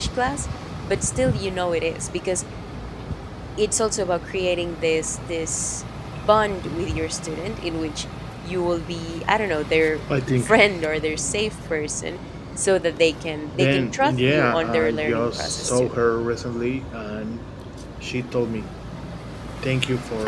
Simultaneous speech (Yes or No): Yes